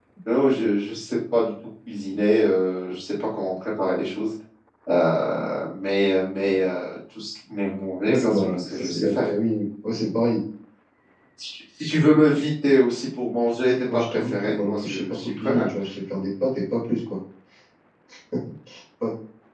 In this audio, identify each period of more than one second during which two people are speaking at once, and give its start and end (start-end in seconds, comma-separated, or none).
8.0-9.3, 13.8-15.6